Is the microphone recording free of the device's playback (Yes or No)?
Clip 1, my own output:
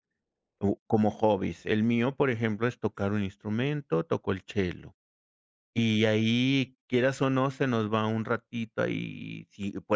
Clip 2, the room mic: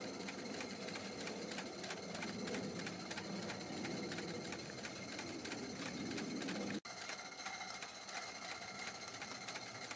Yes